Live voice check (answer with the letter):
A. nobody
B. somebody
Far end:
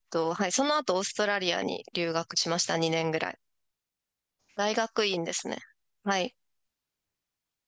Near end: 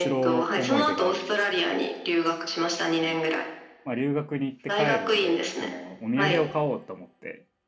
B